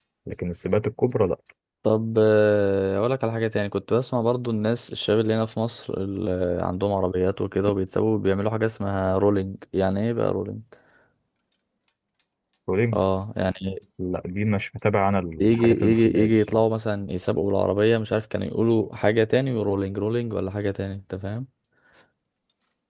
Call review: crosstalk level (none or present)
present